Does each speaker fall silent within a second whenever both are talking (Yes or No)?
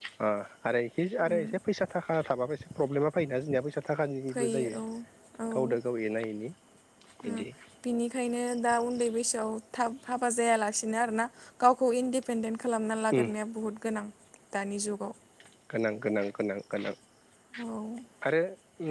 Yes